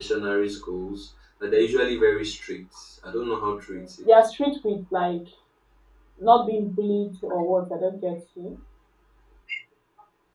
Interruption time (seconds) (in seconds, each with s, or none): none